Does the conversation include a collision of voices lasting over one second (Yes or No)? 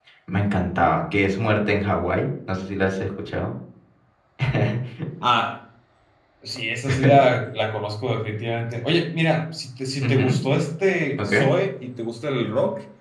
No